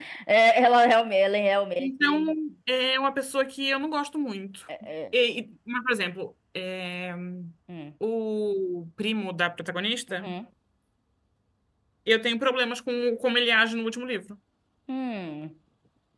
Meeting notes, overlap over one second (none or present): none